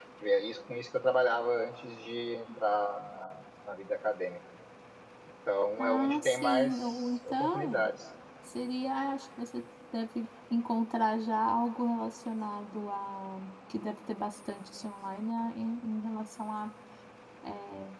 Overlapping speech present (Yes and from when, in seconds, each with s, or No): Yes, from 5.8 s